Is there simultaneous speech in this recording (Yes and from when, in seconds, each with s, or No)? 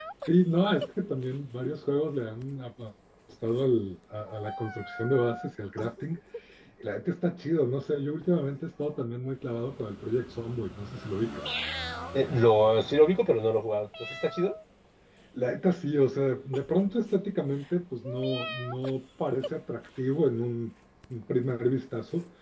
No